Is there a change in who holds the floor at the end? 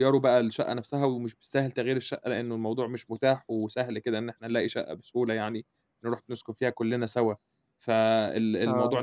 No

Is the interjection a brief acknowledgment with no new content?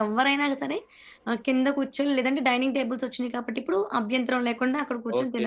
No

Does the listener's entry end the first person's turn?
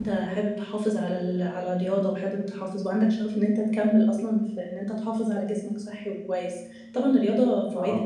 No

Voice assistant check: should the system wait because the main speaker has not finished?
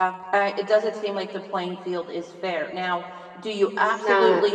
Yes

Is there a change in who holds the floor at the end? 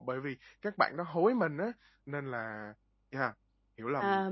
Yes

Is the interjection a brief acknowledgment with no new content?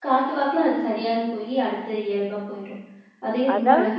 No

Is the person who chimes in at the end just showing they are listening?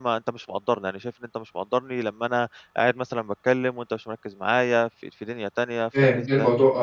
No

